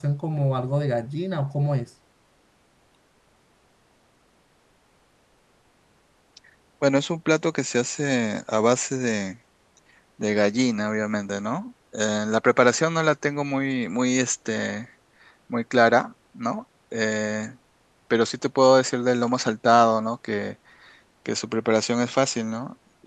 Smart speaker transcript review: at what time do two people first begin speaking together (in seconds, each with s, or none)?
none